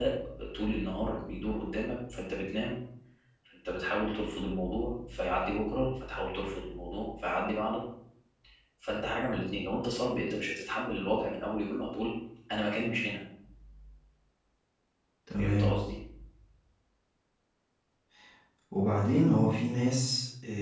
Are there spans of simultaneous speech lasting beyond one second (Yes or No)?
No